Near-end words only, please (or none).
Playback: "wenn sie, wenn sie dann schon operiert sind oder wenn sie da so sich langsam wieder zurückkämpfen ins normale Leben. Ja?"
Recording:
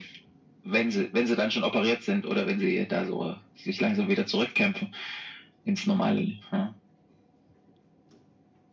none